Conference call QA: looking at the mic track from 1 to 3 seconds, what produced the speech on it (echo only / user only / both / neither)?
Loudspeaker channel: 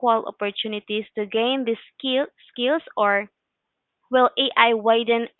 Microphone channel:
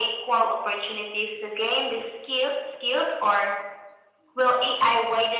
echo only